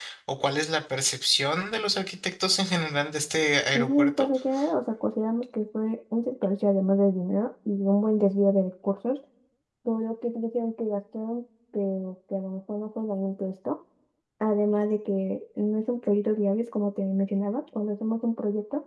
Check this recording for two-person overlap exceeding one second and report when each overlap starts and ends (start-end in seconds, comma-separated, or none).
none